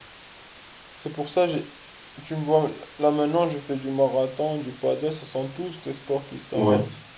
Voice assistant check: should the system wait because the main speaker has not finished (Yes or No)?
No